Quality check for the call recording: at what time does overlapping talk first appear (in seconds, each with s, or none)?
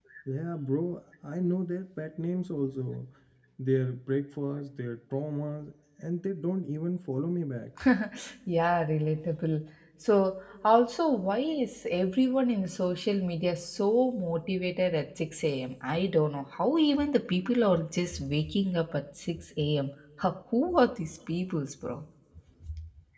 none